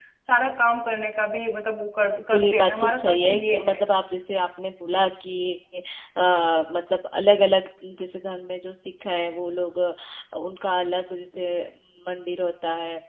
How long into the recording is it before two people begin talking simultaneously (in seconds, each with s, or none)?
2.3 s